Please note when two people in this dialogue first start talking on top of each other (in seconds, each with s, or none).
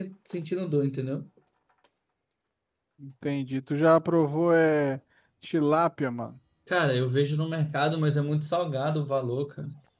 none